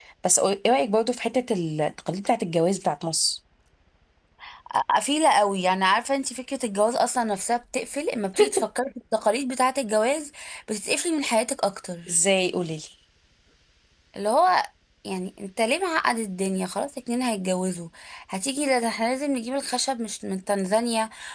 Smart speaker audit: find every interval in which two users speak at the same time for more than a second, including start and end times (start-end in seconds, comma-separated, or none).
none